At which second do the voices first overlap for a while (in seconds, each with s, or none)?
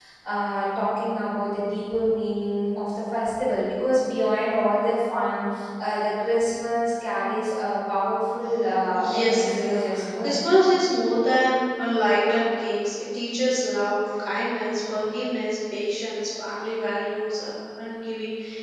8.9 s